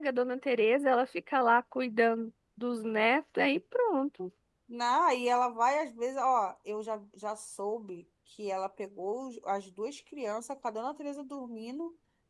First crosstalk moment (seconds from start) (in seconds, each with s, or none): none